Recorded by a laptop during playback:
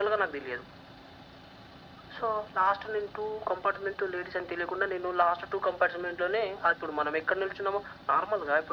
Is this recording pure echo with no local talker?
Yes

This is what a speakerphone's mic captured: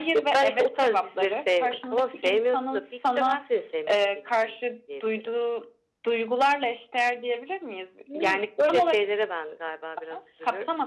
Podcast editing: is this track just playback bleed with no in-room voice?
Yes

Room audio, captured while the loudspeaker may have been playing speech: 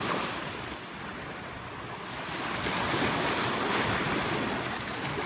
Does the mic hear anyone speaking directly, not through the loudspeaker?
No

